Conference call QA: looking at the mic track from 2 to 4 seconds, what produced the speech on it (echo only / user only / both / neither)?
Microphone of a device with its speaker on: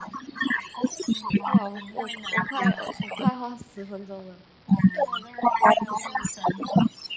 both